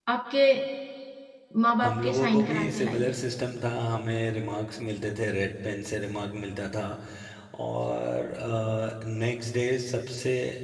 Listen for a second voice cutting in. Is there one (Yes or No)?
Yes